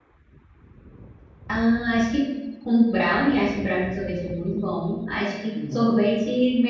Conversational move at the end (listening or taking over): listening